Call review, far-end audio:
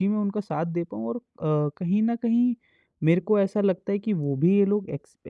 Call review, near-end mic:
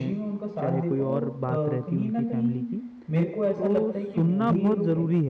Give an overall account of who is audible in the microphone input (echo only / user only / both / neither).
both